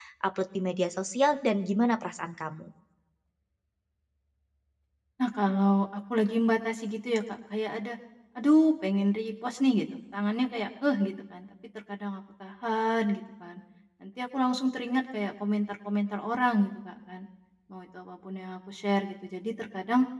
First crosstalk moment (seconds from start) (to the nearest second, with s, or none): none